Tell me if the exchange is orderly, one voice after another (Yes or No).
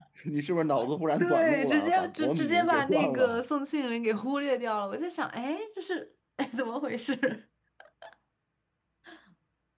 No